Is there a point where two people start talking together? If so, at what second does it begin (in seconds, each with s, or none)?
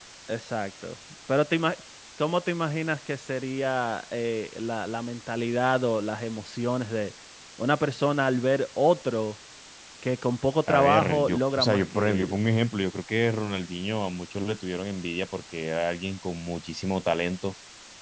10.7 s